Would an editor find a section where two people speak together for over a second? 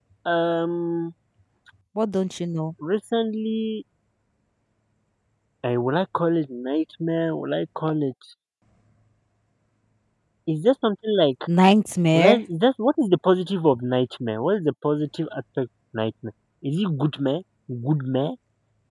No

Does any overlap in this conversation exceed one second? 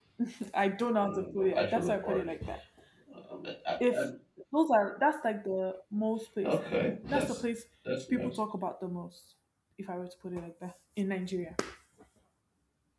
Yes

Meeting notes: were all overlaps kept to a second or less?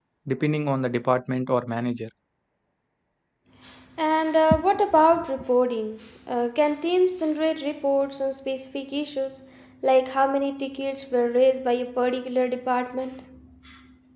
Yes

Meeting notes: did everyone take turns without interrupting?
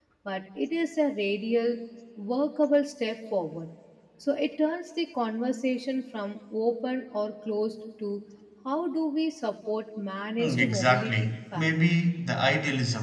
No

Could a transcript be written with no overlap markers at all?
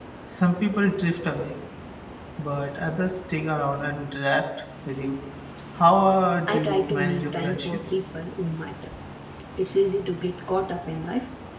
No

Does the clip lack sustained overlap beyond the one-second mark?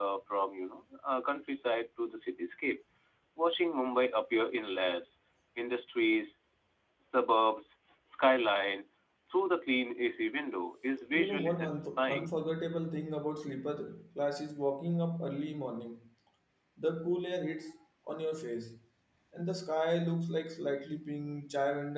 No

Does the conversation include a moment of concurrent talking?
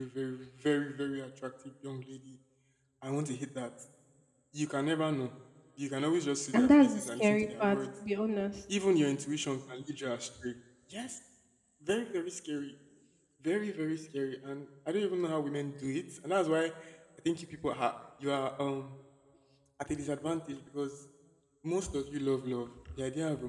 Yes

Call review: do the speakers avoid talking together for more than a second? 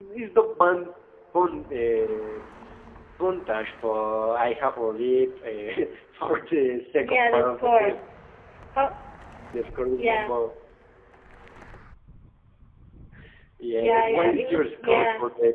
No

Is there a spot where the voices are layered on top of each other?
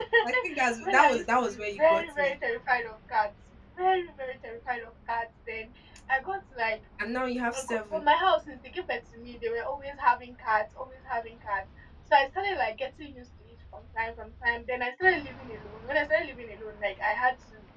Yes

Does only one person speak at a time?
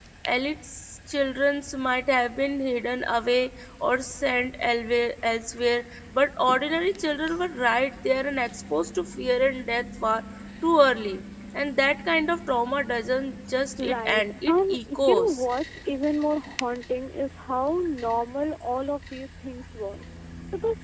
No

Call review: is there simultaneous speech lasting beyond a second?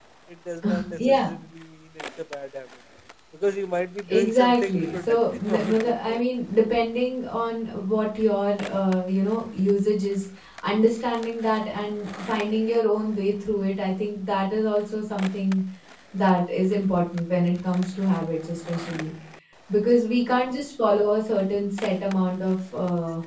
Yes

